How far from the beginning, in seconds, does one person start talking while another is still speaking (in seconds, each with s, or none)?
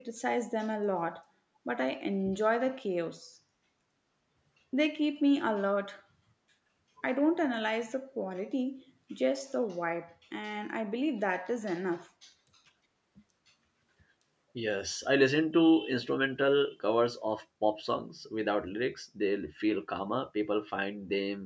none